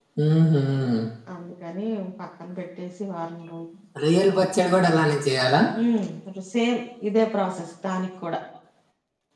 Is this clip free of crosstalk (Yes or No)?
Yes